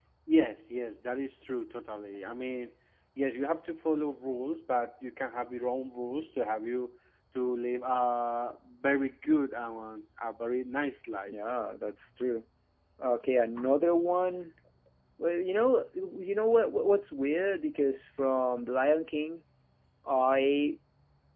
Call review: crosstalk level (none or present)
none